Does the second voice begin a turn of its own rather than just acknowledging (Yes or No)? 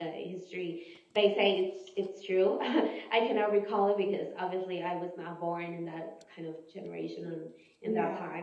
No